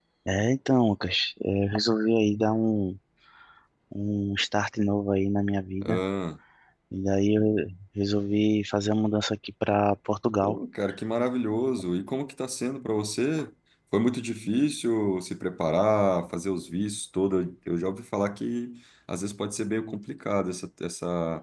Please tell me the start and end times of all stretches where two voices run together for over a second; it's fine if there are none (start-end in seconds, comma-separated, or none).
none